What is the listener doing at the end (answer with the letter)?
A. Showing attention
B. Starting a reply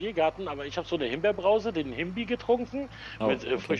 A